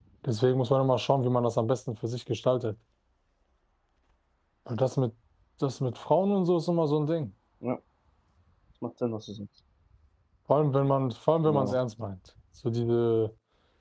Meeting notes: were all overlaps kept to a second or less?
Yes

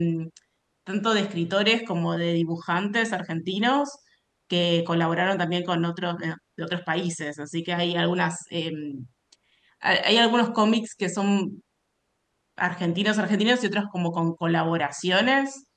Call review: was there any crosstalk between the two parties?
No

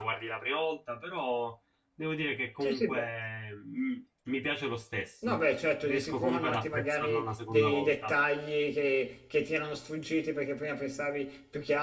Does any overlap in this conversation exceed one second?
Yes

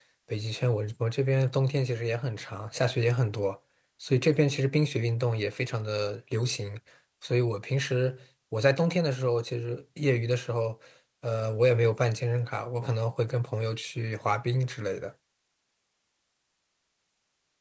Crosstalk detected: No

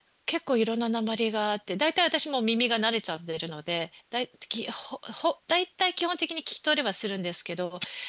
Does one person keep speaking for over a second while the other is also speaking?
No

